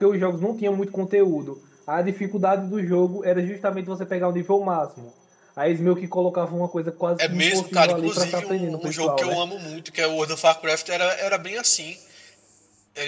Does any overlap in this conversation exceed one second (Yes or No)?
Yes